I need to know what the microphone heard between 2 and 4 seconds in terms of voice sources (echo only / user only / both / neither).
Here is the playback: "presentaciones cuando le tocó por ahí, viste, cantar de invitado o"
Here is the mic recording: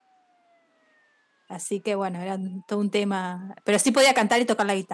user only